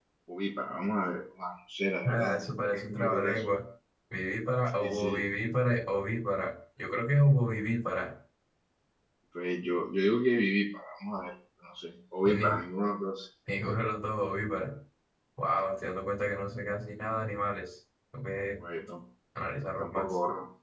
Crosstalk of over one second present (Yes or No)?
Yes